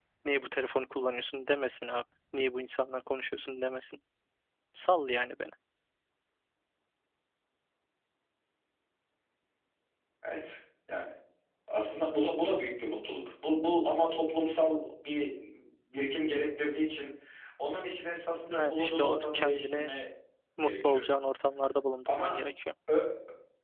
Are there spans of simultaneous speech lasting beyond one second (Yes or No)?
Yes